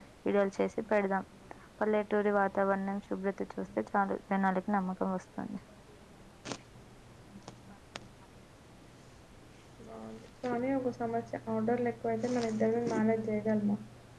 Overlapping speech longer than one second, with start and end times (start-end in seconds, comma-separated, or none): none